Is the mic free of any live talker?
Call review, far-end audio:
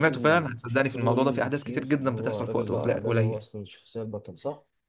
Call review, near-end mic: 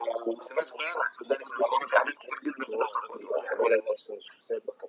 Yes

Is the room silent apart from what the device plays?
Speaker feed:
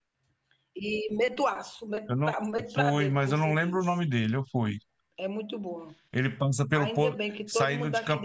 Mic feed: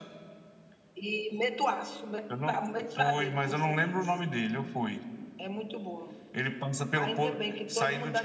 Yes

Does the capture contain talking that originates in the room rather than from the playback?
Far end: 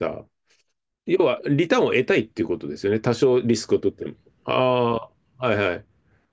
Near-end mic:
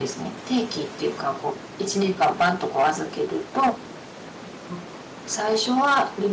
Yes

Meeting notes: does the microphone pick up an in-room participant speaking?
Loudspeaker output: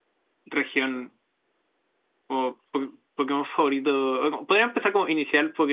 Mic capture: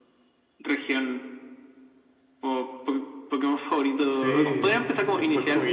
Yes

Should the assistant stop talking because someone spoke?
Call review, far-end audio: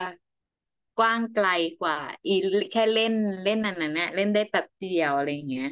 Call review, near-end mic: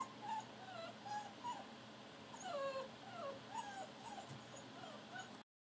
No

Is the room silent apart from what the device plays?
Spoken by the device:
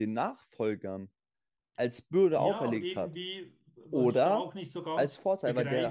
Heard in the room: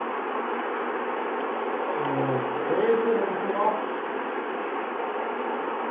No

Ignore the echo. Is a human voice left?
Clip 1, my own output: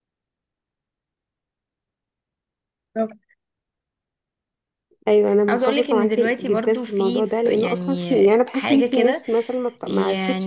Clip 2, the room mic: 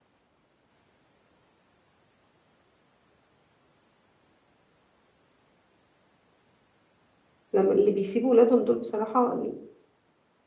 Yes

